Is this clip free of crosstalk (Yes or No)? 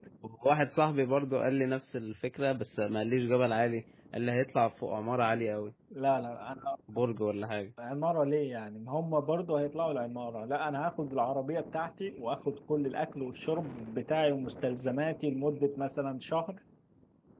Yes